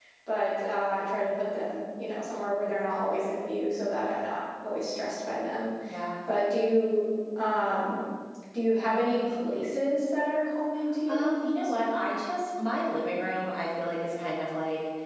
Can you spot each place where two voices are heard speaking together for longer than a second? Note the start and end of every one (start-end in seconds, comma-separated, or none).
none